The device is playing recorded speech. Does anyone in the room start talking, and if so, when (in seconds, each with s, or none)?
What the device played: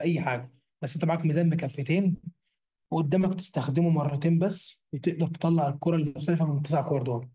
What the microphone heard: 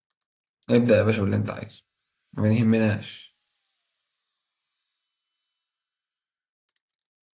0.7 s